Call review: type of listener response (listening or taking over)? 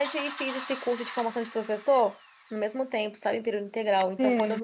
listening